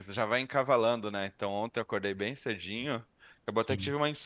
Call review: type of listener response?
listening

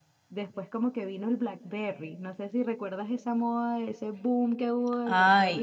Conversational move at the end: taking over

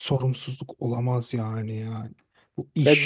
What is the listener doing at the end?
taking over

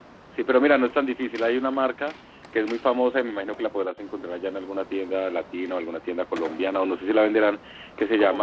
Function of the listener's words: listening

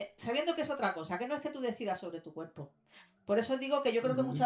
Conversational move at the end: listening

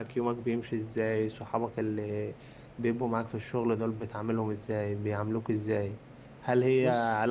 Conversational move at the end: listening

